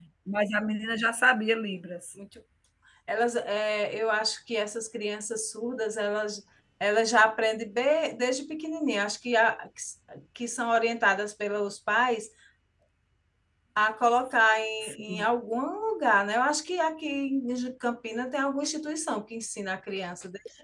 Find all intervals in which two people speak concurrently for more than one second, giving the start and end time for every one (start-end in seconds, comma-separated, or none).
none